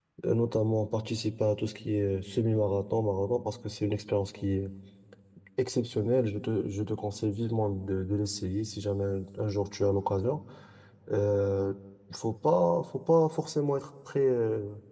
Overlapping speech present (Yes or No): No